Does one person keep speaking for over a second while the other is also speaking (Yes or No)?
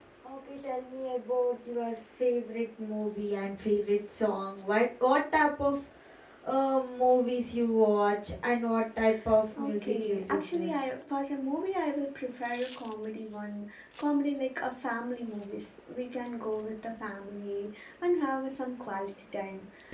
Yes